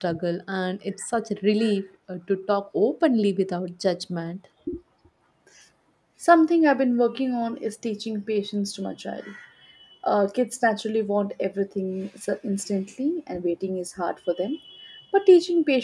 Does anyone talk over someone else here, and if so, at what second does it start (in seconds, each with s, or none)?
none